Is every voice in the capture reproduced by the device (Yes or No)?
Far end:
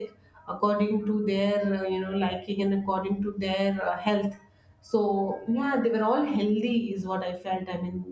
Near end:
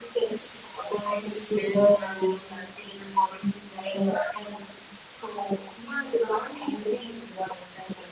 Yes